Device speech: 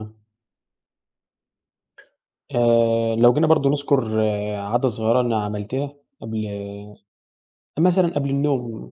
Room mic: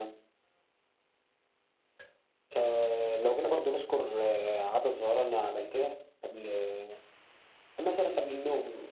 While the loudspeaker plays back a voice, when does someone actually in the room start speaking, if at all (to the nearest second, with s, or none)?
none